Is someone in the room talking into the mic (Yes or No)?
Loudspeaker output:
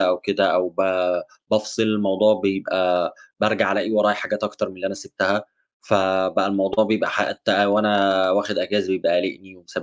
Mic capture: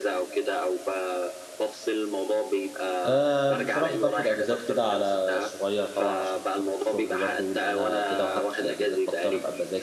Yes